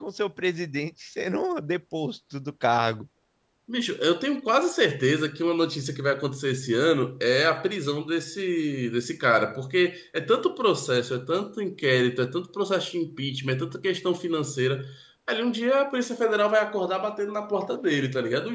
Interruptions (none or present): none